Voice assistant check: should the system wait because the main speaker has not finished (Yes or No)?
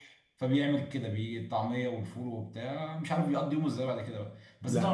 Yes